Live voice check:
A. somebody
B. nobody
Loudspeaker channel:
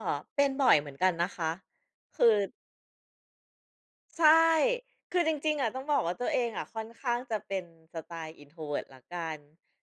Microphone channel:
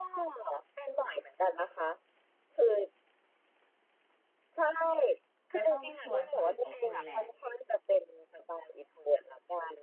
A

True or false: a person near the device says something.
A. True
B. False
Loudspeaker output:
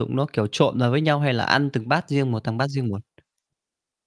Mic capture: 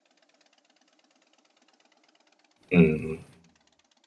A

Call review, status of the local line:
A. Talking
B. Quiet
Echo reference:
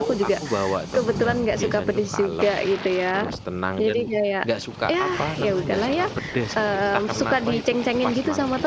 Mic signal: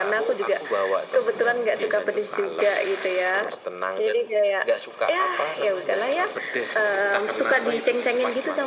B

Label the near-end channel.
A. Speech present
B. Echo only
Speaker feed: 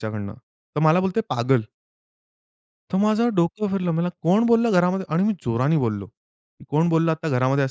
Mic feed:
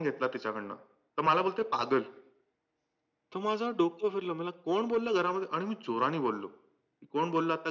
B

